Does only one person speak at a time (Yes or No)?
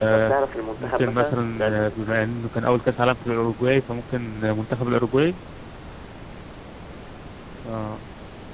No